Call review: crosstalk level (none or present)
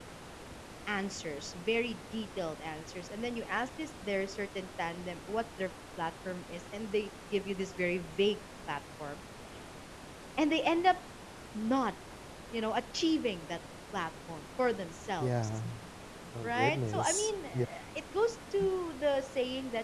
present